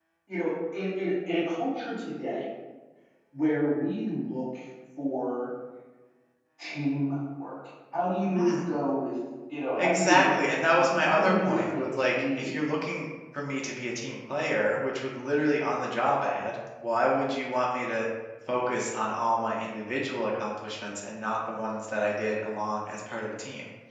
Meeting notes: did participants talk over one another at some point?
Yes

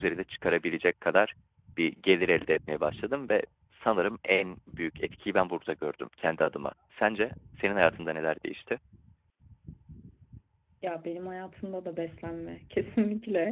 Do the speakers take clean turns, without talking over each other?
Yes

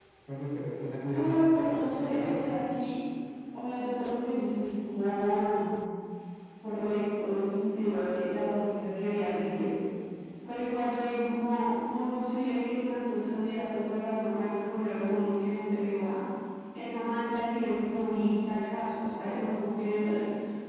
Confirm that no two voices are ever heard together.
No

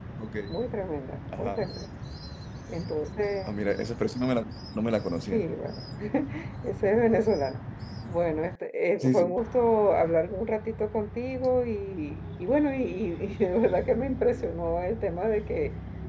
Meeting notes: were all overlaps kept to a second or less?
Yes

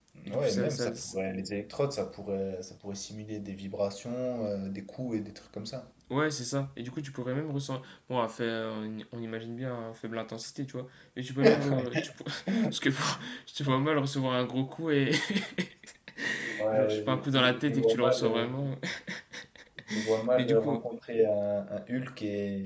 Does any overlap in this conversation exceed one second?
Yes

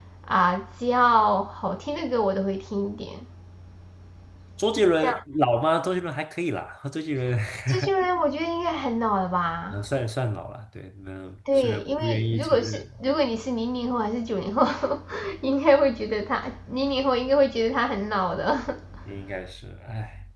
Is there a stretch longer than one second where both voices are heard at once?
Yes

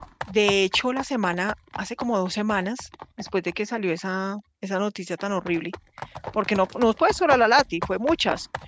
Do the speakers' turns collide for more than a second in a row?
No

